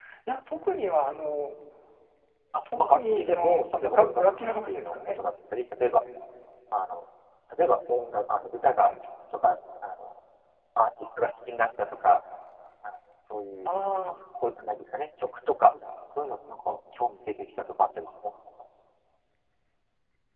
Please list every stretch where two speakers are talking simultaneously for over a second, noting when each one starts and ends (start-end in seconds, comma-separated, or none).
2.8-5.1